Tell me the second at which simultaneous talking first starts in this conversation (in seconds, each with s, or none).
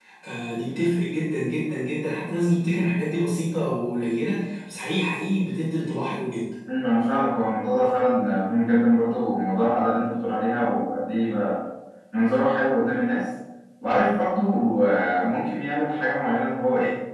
none